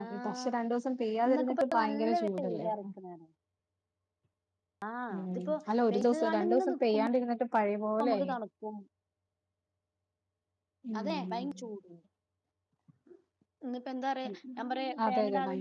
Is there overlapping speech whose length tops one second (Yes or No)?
Yes